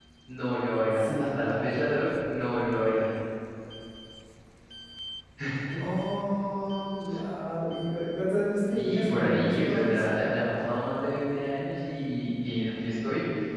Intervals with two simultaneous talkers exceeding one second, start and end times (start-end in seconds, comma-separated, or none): 8.7-10.4